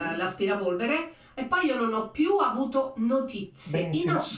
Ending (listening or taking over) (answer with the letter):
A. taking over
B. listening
A